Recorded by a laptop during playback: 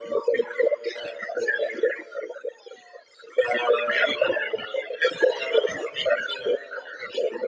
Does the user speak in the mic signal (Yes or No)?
No